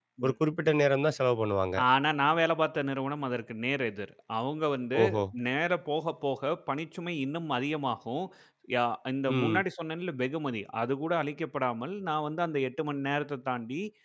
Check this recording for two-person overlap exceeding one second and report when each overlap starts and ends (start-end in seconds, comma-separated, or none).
none